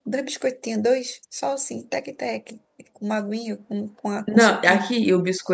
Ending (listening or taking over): taking over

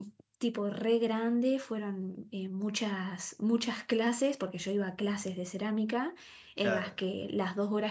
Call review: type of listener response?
listening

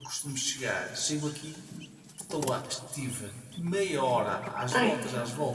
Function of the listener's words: listening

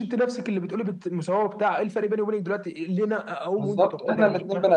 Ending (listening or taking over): taking over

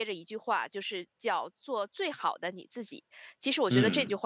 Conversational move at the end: listening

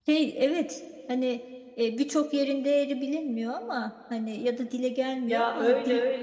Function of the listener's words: taking over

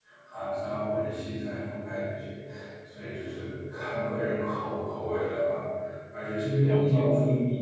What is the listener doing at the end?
listening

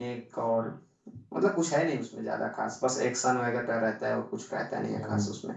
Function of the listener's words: taking over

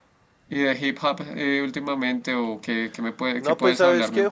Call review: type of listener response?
taking over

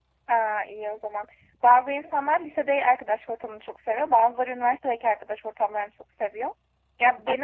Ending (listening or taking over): listening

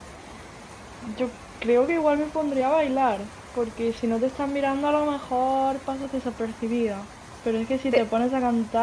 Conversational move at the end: listening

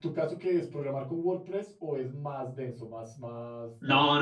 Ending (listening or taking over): taking over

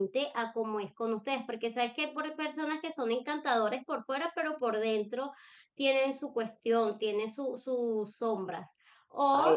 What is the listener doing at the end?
listening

